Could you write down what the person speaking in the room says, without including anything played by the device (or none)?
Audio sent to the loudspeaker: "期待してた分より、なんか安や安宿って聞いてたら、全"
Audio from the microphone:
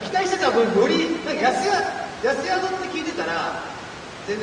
none